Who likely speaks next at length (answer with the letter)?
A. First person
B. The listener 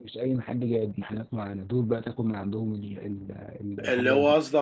B